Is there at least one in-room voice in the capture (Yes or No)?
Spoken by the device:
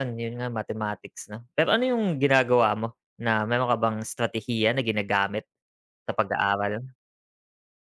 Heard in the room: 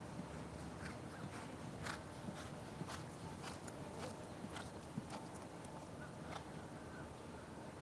No